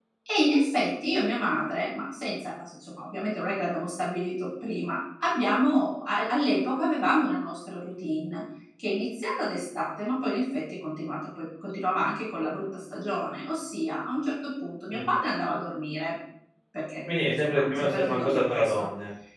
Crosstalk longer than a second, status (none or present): present